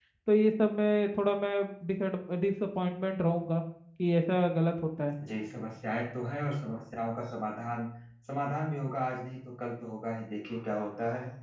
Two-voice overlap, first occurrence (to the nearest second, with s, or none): none